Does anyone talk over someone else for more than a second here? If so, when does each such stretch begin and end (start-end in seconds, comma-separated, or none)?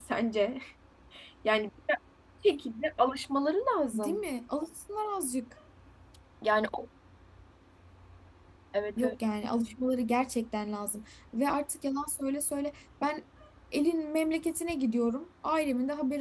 none